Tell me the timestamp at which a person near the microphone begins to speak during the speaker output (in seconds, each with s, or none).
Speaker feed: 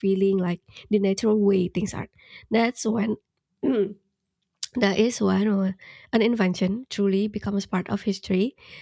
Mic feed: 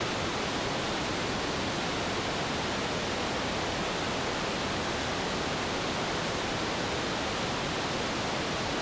none